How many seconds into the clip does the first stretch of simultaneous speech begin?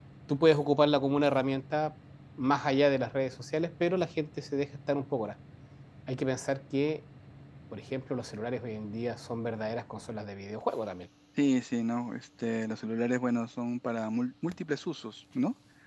none

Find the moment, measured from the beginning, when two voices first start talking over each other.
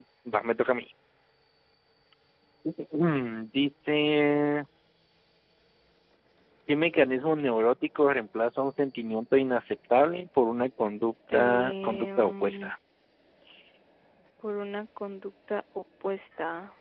11.3 s

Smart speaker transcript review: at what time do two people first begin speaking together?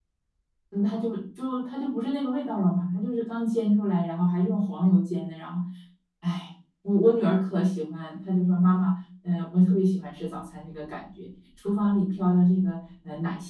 none

